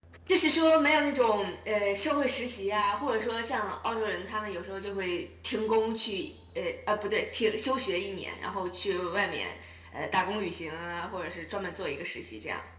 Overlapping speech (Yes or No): No